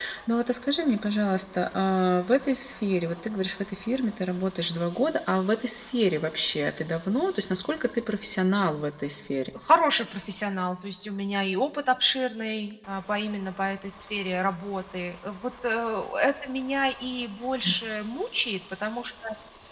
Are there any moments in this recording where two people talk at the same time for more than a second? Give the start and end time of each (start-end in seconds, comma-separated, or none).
none